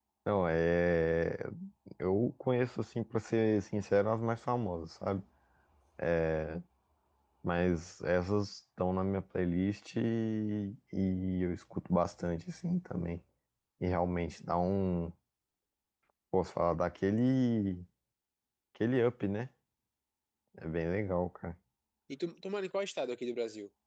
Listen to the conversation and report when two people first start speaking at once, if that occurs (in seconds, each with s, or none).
none